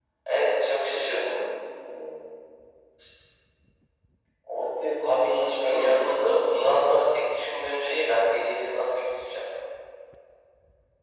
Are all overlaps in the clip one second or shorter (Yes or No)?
No